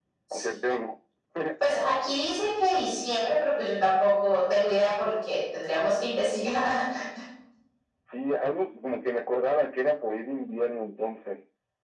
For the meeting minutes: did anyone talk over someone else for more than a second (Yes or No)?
No